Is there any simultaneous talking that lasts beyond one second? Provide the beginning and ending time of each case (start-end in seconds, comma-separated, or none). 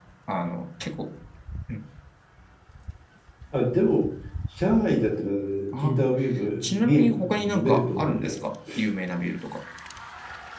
6.6-8.4